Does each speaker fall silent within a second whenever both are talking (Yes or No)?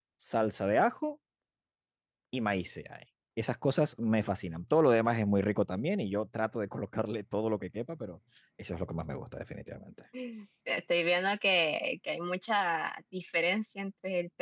Yes